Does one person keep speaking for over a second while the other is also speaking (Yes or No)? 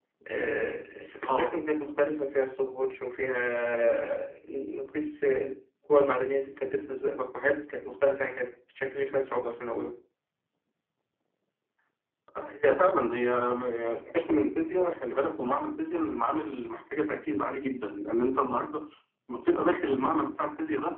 No